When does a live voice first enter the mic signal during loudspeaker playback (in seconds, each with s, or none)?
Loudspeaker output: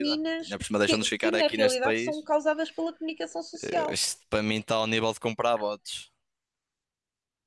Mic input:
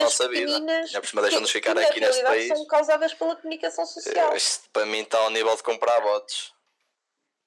none